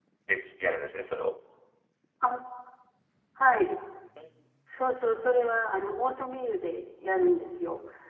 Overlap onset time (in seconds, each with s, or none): none